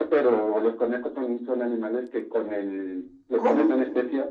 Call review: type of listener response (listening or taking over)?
listening